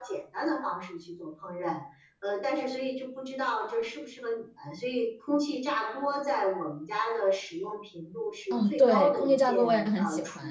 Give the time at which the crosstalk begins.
9 s

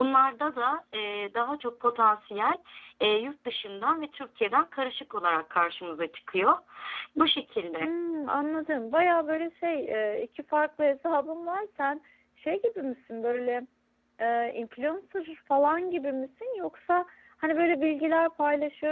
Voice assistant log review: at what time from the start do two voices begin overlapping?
none

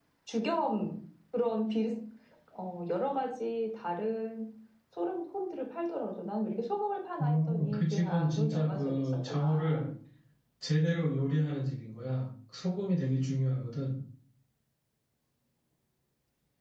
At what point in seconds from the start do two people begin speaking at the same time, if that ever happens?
7 s

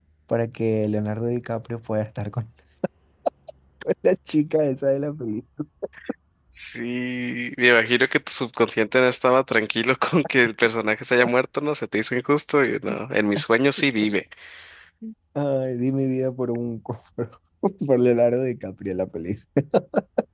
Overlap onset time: none

